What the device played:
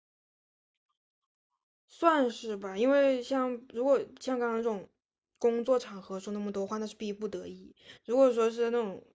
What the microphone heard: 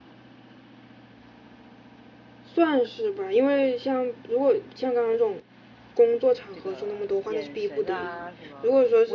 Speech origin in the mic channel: both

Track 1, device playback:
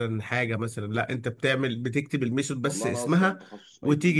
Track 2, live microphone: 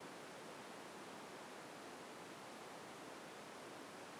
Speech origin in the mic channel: neither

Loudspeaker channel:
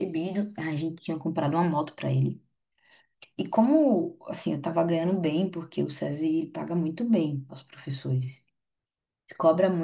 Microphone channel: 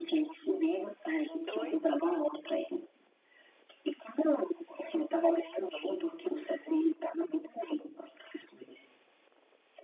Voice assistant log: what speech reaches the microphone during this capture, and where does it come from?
both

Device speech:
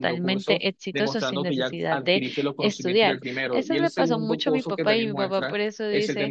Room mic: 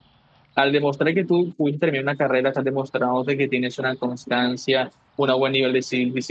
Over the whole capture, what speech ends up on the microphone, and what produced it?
user only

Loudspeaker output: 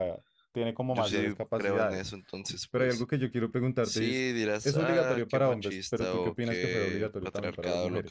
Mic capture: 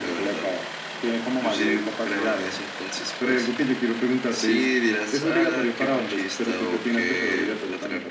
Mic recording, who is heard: echo only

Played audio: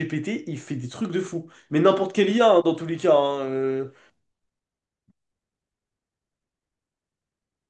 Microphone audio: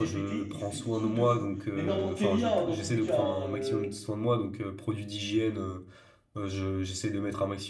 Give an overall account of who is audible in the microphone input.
both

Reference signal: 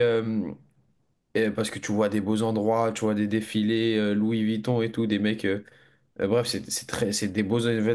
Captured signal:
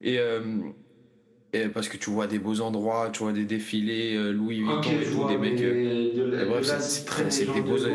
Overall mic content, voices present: both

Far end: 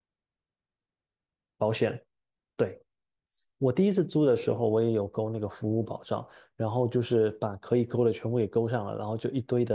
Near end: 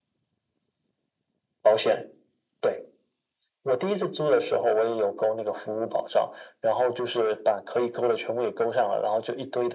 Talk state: echo only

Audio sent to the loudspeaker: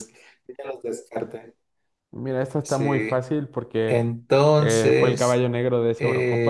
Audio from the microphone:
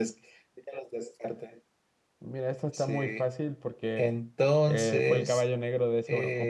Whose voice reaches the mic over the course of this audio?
echo only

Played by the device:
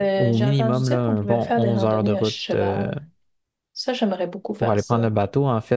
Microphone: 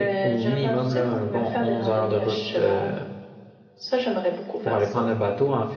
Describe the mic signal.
echo only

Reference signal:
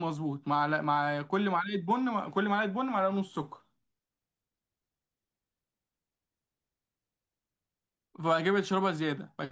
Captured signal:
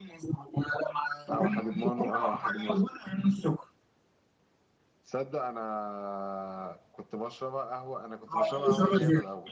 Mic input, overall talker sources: both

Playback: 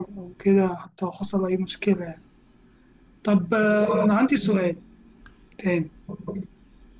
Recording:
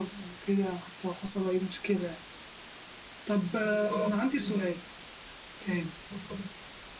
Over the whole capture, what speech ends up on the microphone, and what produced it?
echo only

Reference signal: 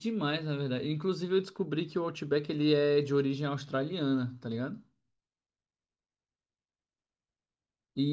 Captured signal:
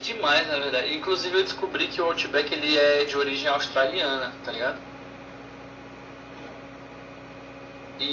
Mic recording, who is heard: echo only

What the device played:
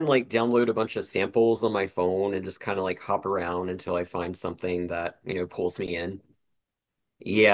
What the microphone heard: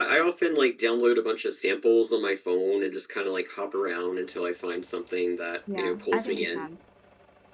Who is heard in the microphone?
both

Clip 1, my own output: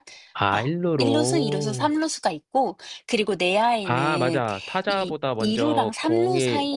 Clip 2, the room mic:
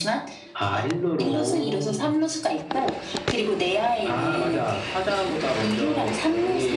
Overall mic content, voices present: echo only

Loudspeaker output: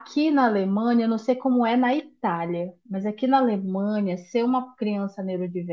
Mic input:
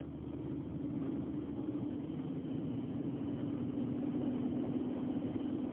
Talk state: neither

